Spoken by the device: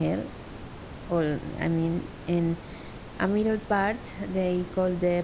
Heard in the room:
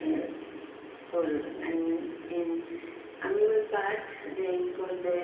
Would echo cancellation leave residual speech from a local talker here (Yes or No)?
Yes